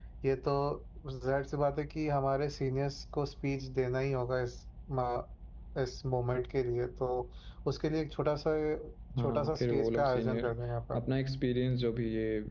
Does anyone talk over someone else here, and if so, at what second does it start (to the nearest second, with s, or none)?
9 s